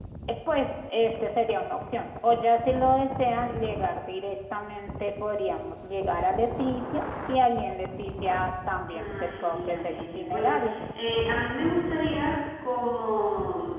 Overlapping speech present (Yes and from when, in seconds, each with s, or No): Yes, from 8.9 s